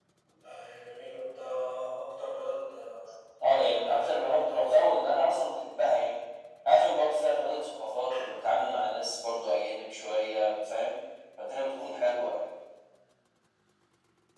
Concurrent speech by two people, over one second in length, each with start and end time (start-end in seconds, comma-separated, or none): 3.7-4.9